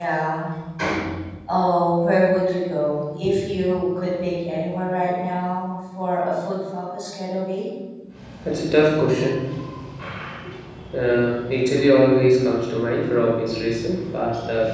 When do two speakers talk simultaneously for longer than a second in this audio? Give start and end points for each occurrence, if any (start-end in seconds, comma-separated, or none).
none